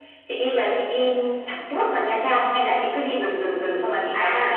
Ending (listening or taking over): taking over